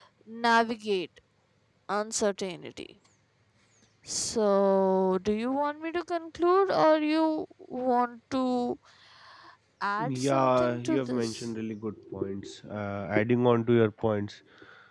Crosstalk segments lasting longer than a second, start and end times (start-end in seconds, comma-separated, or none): 10.0-11.4